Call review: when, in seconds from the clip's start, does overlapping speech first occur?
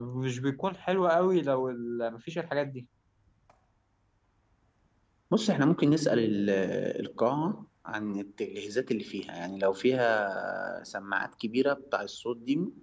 none

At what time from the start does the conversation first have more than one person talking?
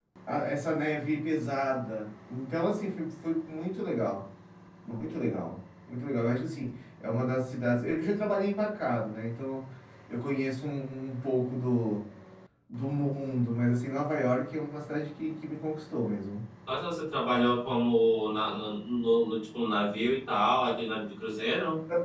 none

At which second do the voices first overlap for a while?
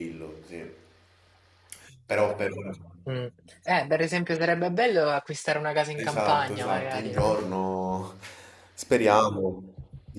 6 s

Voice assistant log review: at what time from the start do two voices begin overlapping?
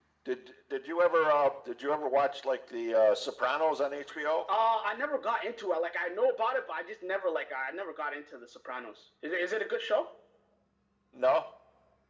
none

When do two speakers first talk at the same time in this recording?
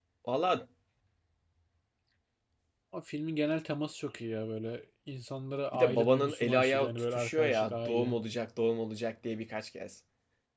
6 s

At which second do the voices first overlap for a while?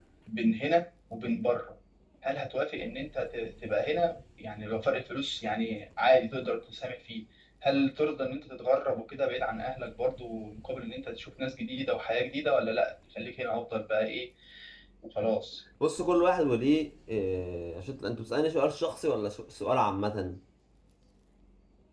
none

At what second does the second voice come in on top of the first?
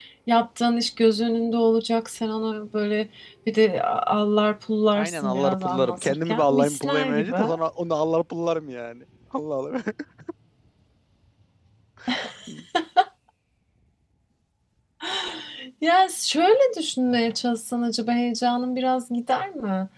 5 s

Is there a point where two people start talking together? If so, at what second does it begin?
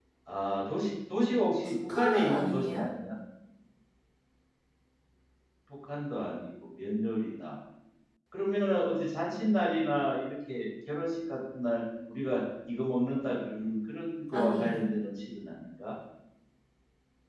2 s

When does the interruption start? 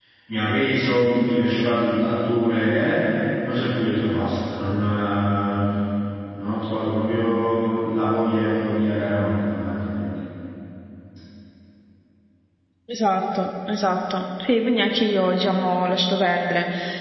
none

